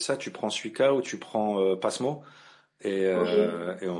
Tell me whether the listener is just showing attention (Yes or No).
Yes